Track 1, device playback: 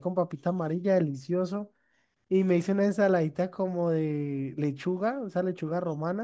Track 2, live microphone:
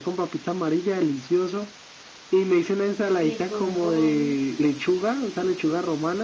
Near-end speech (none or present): present